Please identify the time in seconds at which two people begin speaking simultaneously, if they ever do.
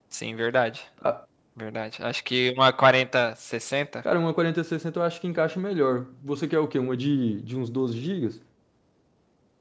none

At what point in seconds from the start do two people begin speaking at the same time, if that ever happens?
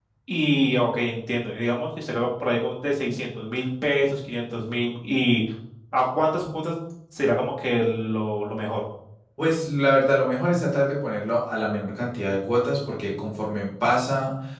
none

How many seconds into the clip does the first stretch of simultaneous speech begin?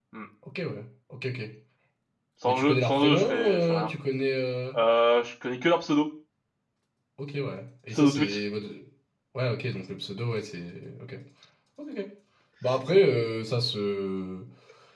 2.5 s

